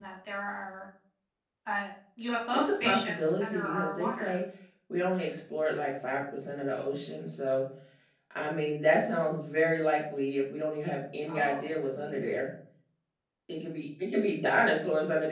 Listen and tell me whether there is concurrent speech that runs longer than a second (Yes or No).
Yes